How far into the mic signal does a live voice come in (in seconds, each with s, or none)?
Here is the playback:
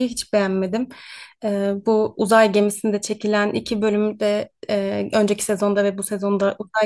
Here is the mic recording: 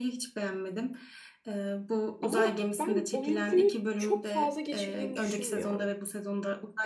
2.2 s